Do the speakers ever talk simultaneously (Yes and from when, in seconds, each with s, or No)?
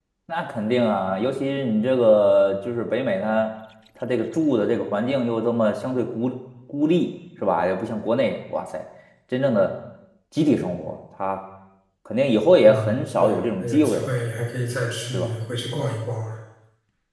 Yes, from 12.6 s